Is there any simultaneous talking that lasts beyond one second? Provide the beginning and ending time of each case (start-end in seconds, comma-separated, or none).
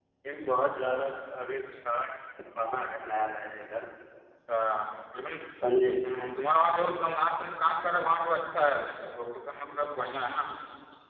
none